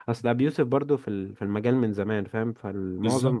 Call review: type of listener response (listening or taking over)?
listening